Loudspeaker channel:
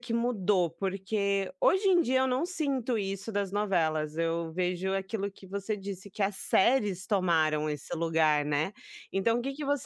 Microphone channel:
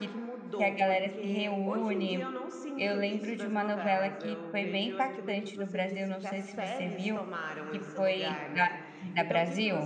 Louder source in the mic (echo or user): user